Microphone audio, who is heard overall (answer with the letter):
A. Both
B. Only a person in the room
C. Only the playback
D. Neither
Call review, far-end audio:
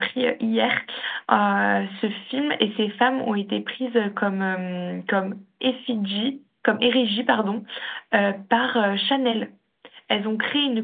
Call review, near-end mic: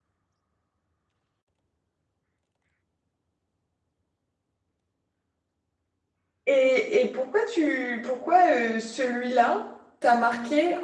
B